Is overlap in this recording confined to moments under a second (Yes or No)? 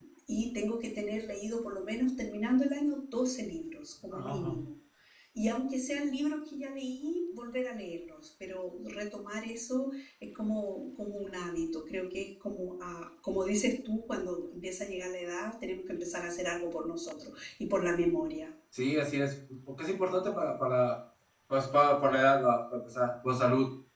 Yes